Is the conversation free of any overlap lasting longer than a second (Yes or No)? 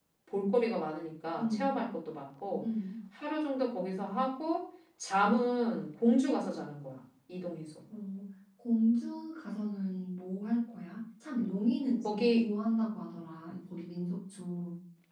Yes